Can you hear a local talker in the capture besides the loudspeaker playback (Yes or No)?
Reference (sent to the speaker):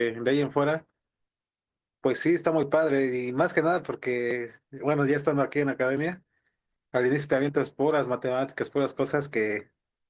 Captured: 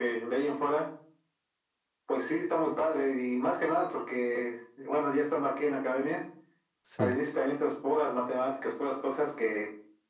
Yes